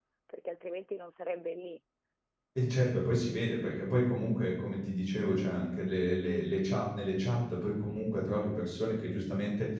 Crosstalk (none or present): none